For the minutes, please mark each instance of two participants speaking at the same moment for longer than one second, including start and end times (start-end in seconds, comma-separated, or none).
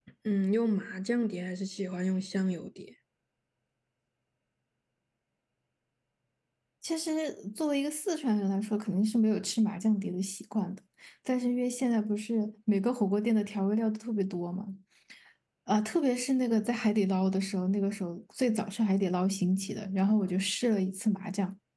none